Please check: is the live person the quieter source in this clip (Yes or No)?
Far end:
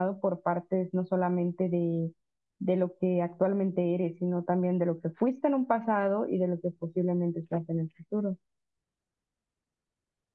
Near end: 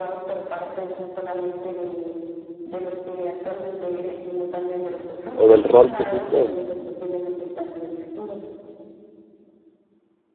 No